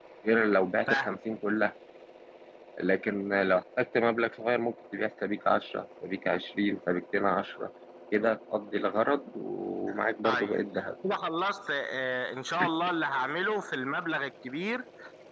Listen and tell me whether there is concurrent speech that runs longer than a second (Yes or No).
No